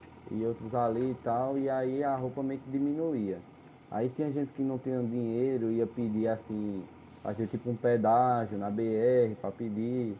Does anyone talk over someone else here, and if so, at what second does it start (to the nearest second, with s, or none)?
none